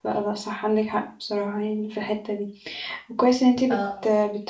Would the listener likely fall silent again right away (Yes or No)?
Yes